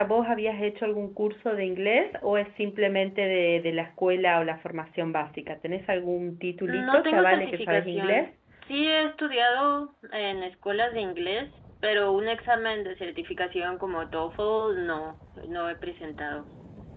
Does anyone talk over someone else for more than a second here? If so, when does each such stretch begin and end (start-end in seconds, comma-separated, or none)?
6.7-8.3